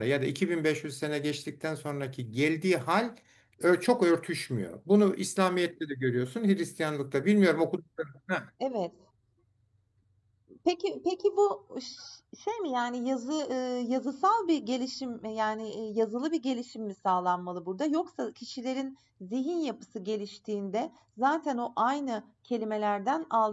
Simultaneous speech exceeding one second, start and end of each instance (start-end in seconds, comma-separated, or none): none